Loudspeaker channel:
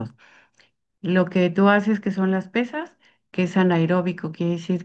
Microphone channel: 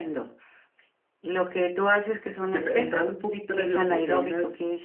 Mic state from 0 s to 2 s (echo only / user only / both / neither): echo only